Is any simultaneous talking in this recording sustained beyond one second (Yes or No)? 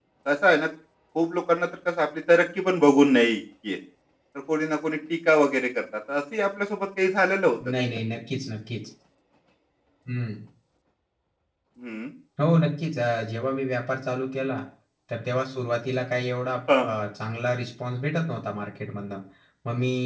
No